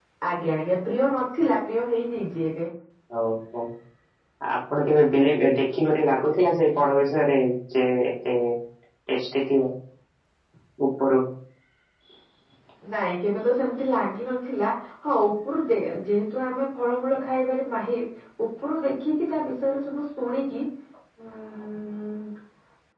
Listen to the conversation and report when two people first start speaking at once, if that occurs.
none

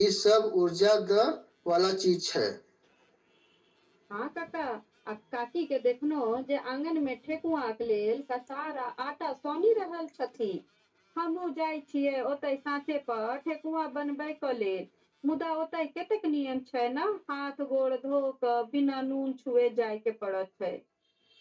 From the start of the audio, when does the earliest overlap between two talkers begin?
none

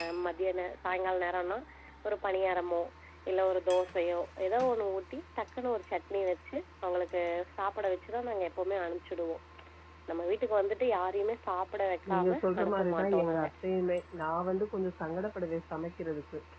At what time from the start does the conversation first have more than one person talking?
12.1 s

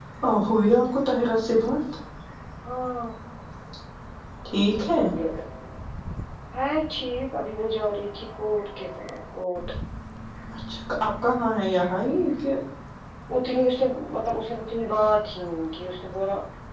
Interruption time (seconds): none

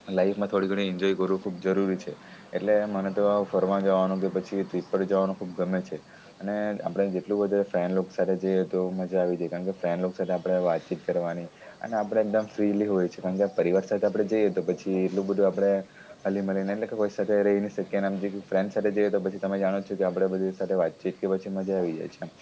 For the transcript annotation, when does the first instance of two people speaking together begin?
none

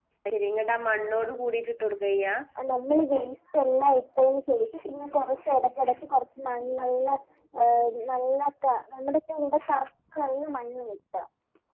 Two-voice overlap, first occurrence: none

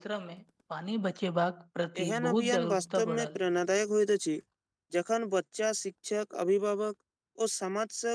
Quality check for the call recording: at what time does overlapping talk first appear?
1.9 s

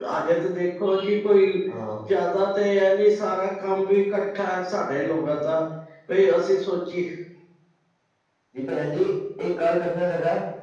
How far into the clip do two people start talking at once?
none

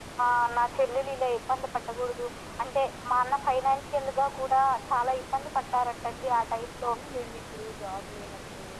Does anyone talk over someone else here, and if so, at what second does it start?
none

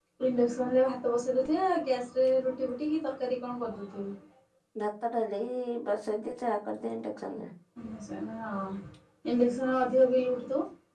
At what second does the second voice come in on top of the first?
none

